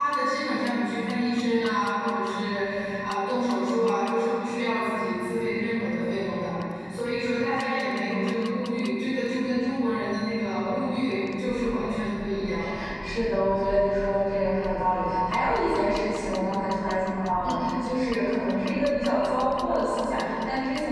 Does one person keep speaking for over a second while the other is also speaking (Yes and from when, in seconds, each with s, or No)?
No